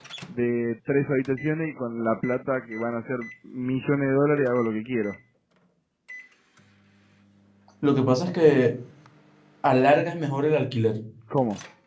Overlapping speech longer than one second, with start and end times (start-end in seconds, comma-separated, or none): none